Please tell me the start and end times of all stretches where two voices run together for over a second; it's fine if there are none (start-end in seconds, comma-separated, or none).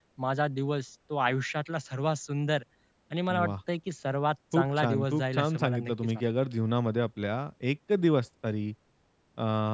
4.5-6.2